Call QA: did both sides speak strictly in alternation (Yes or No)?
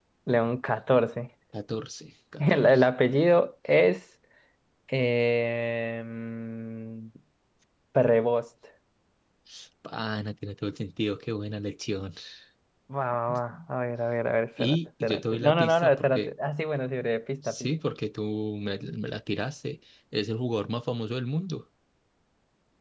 No